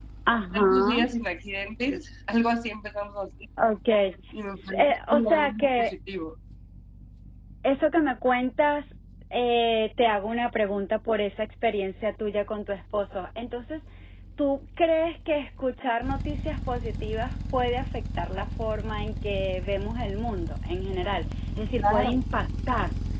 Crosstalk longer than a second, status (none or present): present